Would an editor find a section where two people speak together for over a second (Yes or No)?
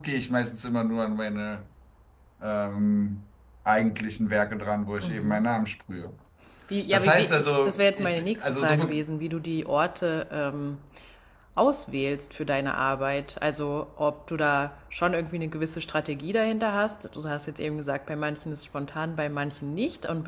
Yes